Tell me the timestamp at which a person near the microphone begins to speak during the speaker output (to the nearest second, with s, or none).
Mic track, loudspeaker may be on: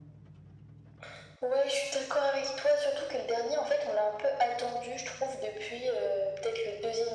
none